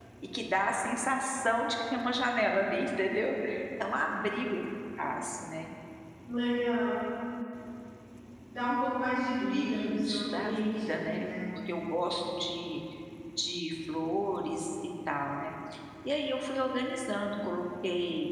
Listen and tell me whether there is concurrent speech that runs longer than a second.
Yes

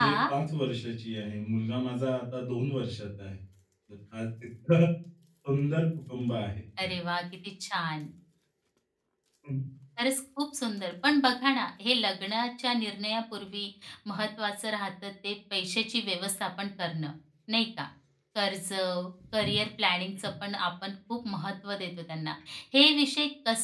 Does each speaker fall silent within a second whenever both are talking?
Yes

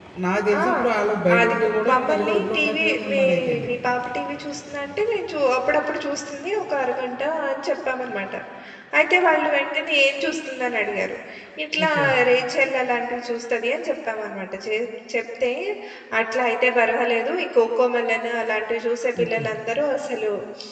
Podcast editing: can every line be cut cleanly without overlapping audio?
No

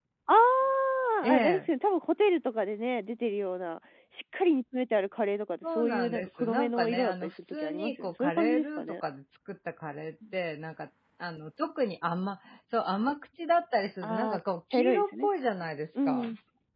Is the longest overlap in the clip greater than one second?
Yes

